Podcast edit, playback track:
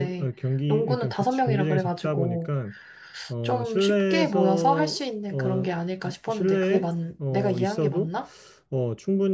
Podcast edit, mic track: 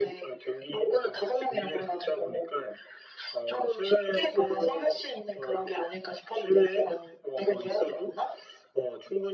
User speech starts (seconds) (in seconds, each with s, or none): none